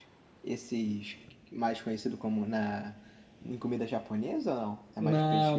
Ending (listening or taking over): taking over